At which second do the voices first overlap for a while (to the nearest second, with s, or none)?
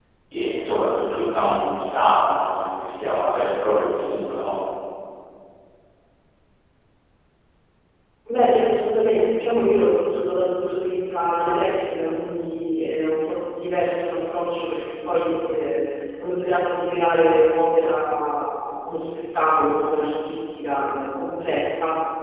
none